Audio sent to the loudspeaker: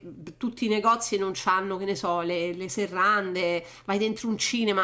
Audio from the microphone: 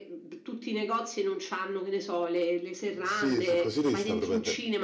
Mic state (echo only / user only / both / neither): both